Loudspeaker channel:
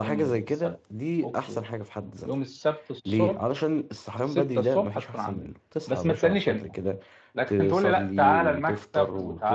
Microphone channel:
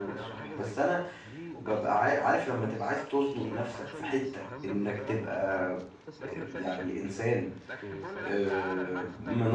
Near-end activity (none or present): present